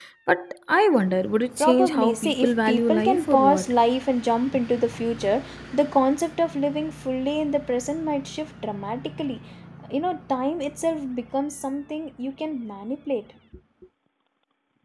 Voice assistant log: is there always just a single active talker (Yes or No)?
No